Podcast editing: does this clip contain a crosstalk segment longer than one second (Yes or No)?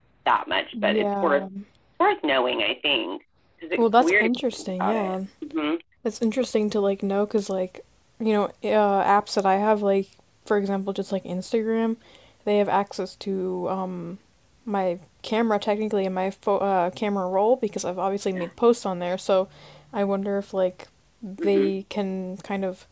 Yes